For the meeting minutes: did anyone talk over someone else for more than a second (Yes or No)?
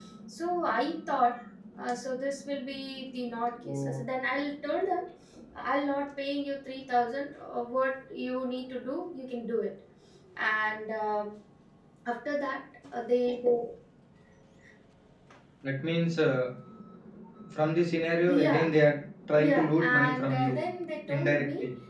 Yes